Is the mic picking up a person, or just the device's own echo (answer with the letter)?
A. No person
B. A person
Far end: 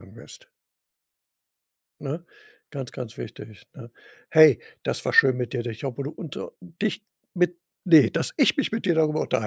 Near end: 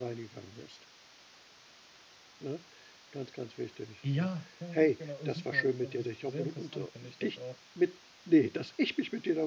B